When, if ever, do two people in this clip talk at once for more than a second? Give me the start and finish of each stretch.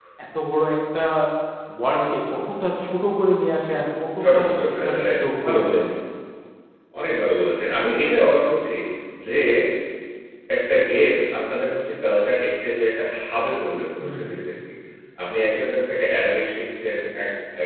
4.2-5.9

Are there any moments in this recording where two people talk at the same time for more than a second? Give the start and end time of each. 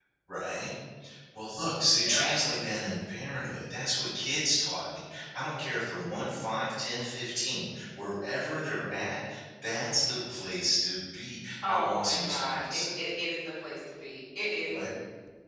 11.6-13.0

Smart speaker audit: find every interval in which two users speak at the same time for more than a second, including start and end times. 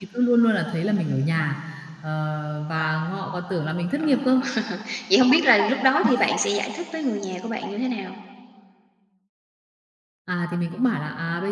none

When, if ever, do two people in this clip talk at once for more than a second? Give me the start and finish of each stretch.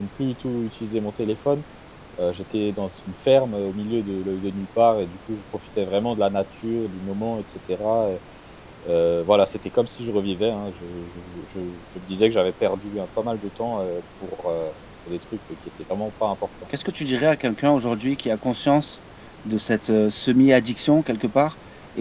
none

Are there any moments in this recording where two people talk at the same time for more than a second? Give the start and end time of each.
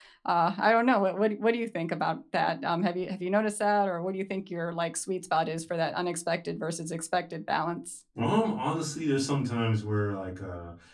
none

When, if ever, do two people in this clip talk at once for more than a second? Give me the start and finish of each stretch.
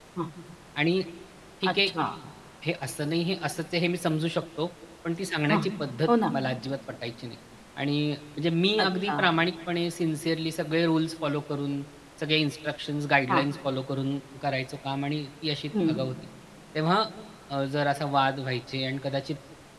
none

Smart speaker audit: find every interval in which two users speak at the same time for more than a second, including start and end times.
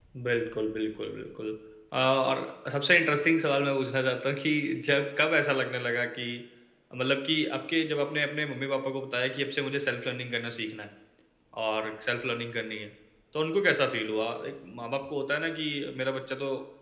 none

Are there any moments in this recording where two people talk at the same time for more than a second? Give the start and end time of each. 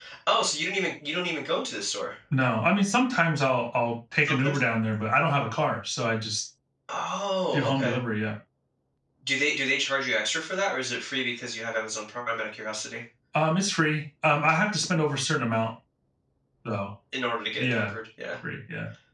none

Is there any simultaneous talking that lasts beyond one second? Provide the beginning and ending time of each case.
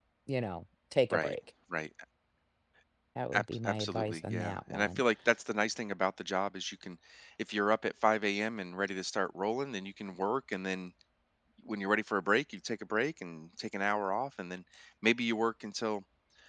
3.3-5.0

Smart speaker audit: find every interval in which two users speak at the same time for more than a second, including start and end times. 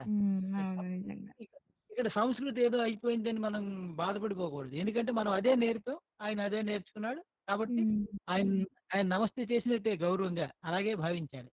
none

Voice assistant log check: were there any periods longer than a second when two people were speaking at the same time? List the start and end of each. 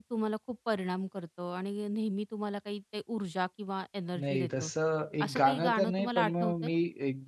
5.2-6.7

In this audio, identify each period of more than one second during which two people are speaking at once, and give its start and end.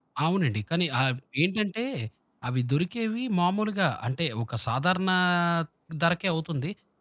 none

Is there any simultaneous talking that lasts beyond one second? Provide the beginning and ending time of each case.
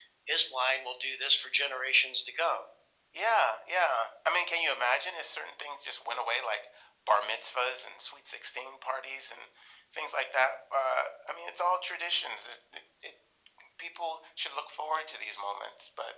none

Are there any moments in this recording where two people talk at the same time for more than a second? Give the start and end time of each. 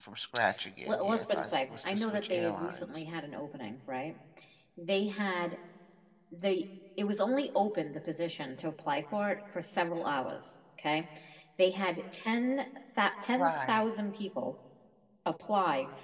0.8-3.0

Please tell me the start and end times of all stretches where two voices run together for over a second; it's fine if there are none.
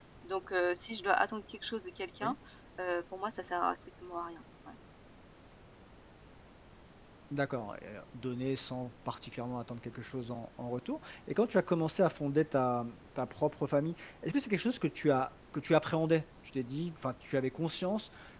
none

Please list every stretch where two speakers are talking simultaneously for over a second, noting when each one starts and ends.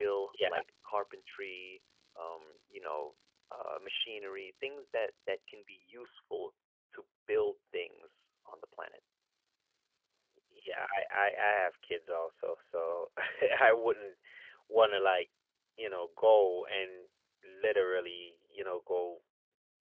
none

